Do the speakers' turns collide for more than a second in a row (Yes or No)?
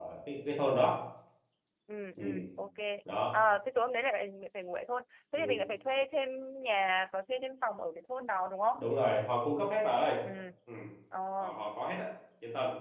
No